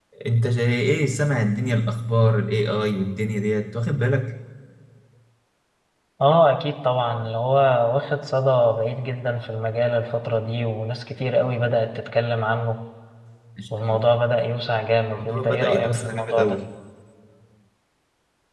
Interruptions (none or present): present